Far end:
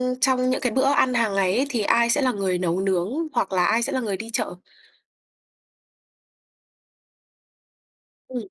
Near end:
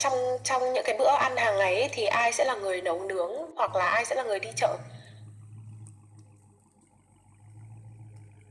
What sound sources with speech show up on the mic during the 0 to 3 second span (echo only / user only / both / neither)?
echo only